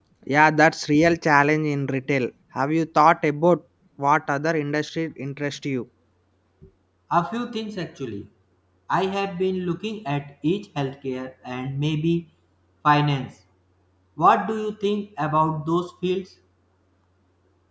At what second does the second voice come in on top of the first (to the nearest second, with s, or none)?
none